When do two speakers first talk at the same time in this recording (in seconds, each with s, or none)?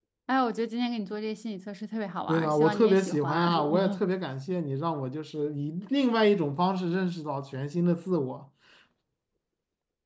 2.3 s